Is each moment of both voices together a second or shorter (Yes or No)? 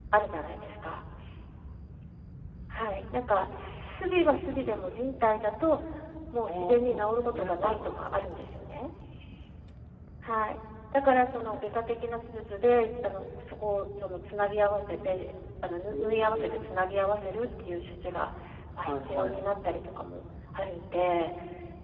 No